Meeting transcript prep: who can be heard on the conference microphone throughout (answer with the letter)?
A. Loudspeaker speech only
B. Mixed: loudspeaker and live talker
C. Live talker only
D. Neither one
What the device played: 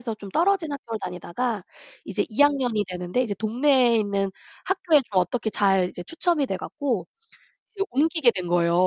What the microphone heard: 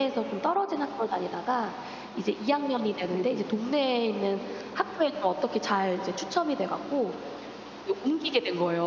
B